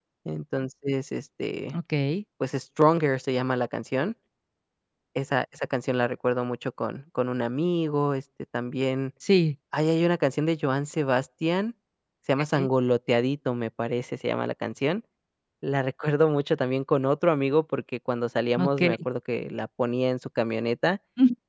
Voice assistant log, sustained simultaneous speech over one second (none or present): none